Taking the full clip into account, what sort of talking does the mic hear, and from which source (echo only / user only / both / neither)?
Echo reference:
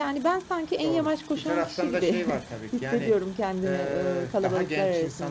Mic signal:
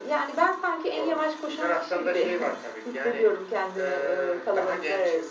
echo only